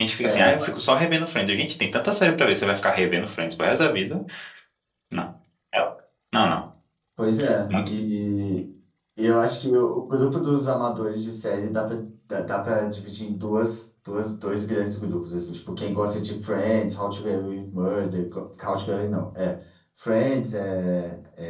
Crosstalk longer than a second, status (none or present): none